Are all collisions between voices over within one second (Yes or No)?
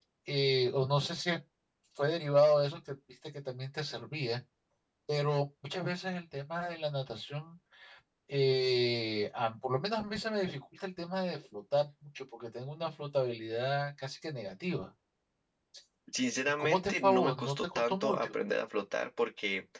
No